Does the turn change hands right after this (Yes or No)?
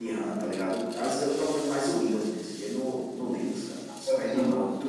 No